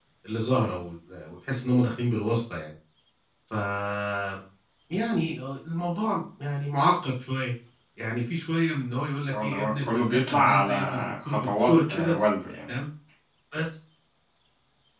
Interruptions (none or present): present